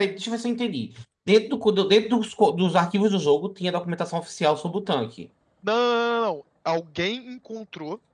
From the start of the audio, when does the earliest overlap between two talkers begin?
none

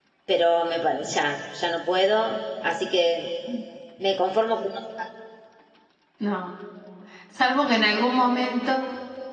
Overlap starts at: none

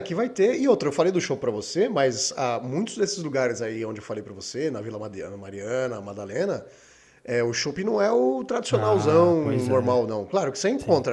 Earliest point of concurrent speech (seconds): 8.7 s

